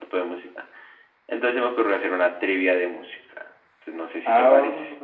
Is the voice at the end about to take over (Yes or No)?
Yes